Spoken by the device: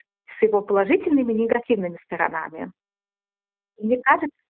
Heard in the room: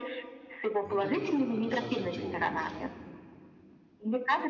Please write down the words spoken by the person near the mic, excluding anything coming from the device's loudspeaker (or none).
Ну ты тоже к какой-то совсем теории ушла. В